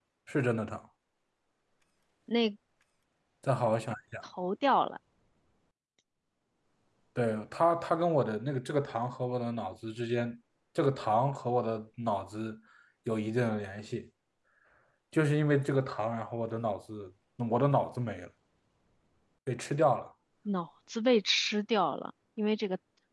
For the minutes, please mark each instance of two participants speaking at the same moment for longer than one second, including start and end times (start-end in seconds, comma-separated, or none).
none